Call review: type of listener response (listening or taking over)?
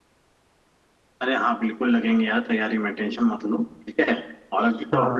listening